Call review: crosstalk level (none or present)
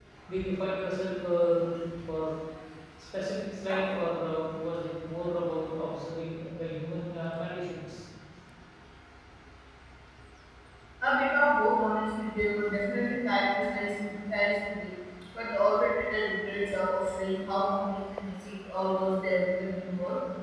none